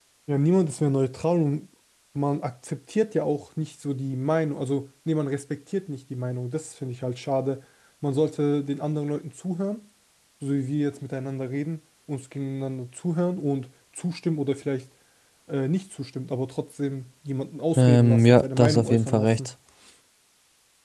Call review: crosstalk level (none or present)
present